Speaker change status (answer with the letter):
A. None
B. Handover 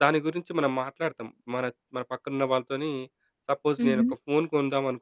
A